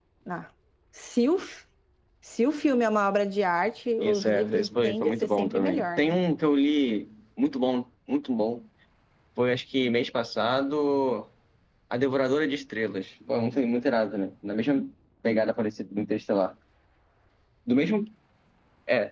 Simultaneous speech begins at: 4 s

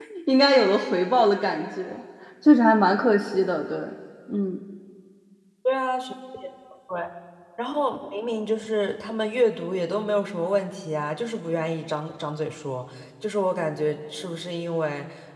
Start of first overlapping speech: none

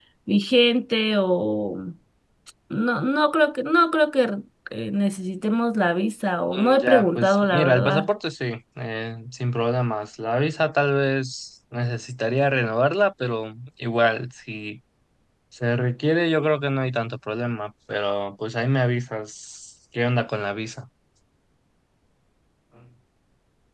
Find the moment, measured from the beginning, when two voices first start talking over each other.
7 s

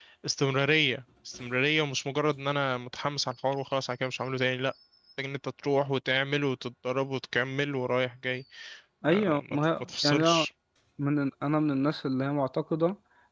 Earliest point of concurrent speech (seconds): 9 s

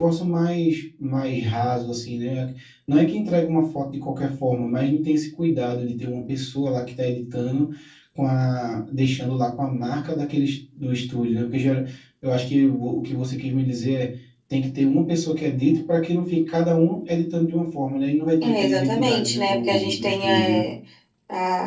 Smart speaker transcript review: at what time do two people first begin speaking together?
18 s

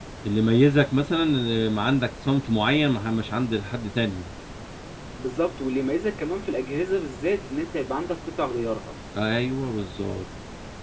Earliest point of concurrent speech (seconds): none

